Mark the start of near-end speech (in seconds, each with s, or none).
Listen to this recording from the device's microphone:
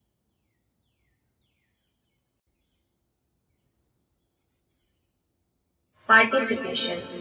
6.1 s